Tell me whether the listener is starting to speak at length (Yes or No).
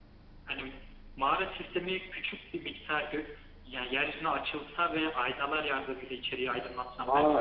Yes